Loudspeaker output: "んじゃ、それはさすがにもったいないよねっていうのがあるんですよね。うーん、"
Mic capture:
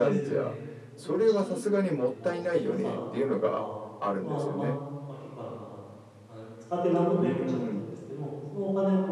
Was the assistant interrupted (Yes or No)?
Yes